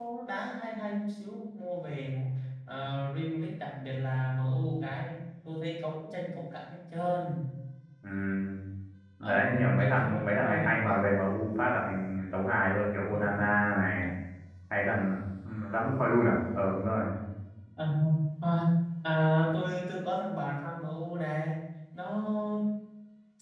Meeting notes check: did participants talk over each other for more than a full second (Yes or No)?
Yes